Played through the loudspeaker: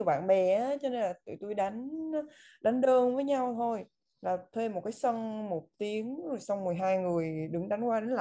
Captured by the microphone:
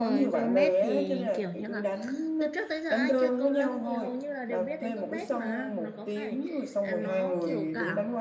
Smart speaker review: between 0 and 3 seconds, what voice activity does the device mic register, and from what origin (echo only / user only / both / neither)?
both